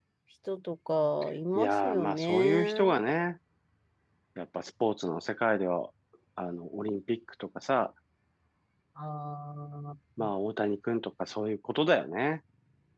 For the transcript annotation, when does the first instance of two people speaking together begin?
1.6 s

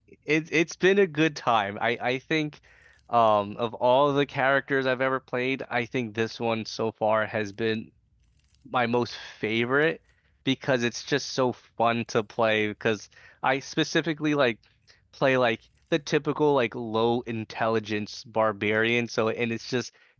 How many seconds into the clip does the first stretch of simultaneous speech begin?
none

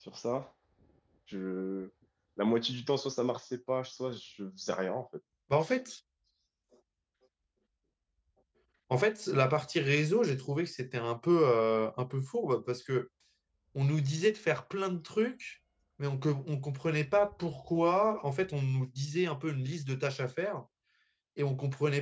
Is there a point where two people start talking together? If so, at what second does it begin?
none

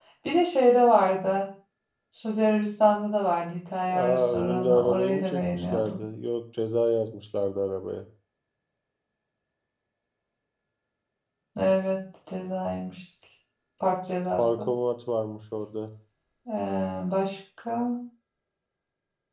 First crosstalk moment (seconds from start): 3.9 s

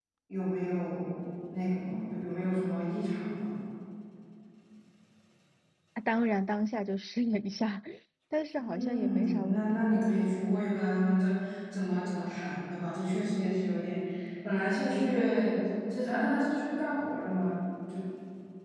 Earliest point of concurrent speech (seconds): 8.6 s

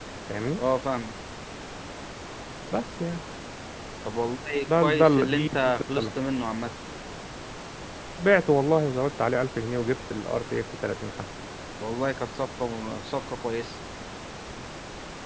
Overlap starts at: 4.7 s

